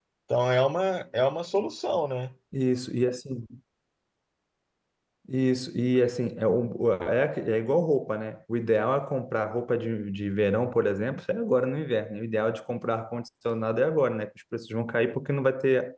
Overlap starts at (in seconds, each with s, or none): none